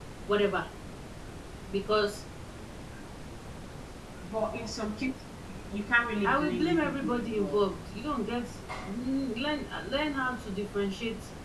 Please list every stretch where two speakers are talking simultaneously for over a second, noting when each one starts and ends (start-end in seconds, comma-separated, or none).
6.2-7.6